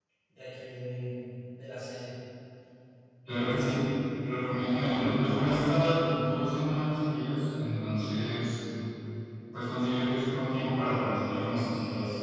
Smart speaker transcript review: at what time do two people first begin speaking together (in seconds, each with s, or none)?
none